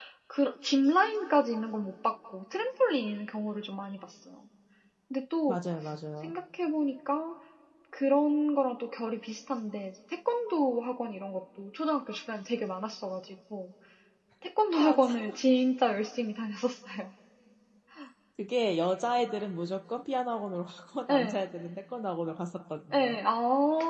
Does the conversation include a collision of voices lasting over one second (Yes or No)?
No